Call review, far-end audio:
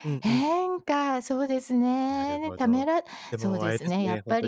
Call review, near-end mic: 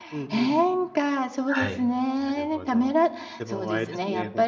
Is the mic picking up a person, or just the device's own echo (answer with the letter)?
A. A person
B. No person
A